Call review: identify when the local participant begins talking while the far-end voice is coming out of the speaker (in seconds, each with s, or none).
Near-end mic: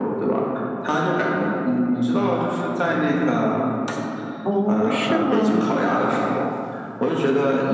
4.4 s